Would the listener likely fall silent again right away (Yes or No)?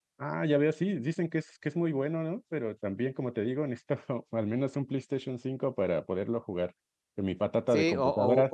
No